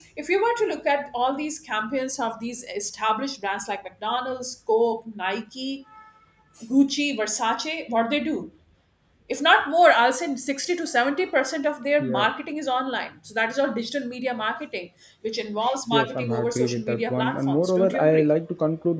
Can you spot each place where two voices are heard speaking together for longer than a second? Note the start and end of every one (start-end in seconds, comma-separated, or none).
15.9-18.3